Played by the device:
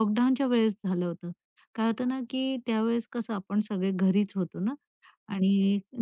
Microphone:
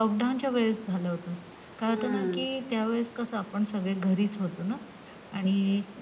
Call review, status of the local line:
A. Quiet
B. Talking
B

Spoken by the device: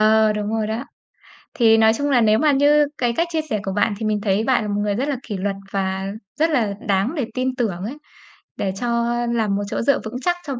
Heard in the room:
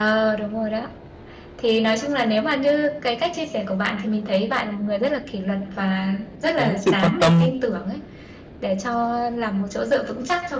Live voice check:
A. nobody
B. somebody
B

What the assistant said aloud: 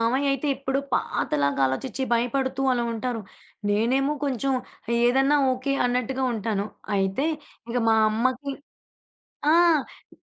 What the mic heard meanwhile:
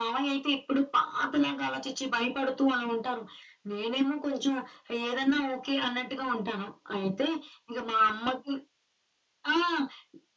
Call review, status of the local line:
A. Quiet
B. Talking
A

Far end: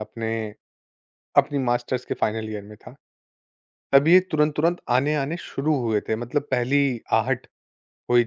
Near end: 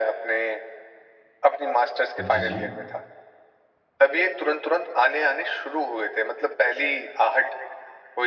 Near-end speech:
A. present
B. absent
A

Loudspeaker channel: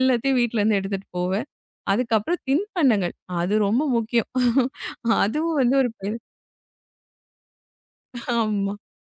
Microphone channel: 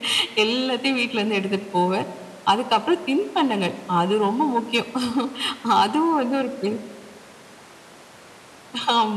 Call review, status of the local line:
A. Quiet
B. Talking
A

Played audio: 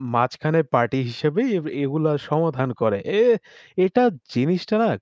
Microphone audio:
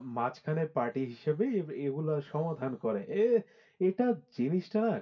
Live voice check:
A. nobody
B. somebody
A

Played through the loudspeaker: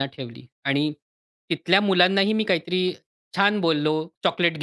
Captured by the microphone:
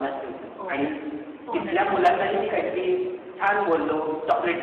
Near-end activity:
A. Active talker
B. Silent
A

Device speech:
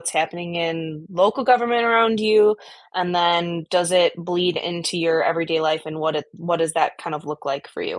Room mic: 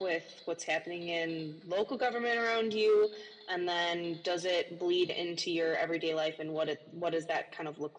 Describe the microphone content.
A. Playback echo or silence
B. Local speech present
A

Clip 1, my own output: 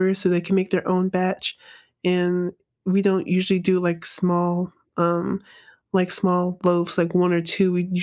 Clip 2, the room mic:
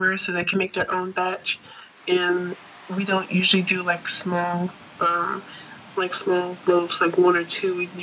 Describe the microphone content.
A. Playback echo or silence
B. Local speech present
A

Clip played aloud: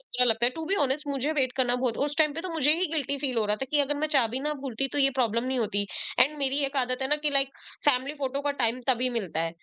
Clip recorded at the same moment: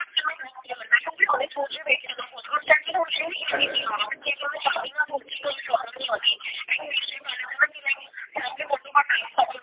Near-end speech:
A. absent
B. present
B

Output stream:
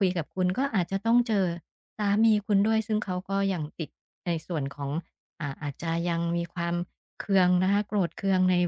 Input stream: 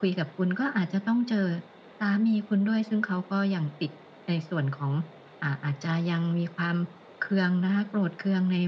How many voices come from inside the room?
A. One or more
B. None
B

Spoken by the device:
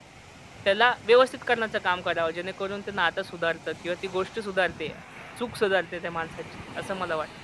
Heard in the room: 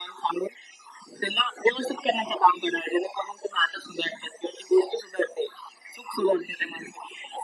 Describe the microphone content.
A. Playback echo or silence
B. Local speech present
A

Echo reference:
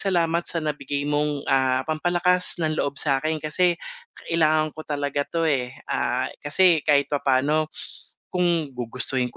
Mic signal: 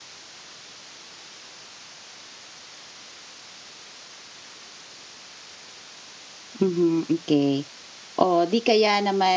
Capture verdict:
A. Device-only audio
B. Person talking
B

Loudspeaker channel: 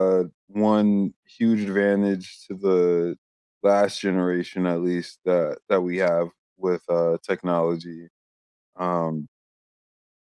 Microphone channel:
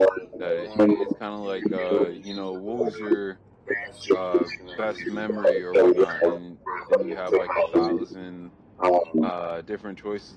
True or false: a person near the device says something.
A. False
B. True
B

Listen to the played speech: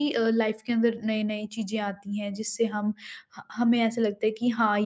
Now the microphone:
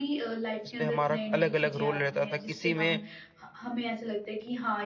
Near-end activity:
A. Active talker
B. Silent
A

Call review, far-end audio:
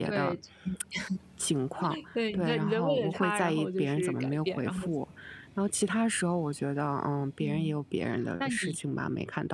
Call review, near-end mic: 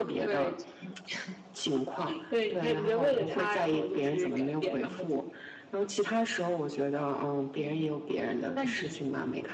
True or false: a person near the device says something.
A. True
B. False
B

